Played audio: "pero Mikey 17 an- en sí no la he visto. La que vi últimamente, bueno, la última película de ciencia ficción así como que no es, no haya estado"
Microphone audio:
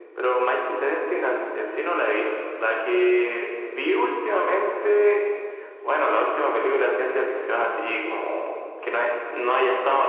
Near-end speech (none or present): none